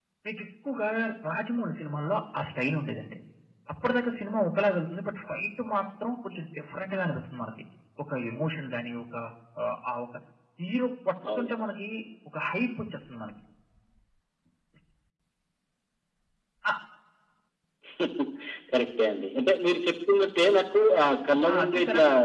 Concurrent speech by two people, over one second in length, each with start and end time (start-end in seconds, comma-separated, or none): none